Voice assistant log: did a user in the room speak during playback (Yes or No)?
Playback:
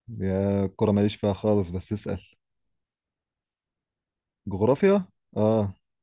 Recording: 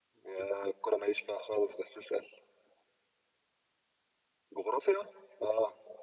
No